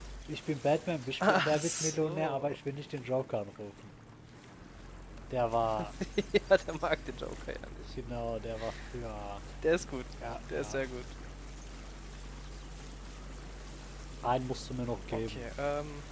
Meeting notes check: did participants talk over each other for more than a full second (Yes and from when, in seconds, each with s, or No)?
Yes, from 1.3 s